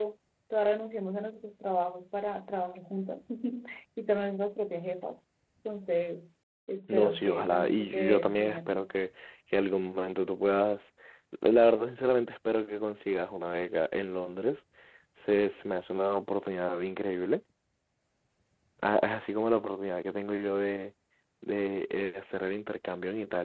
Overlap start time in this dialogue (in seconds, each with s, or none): 6.9 s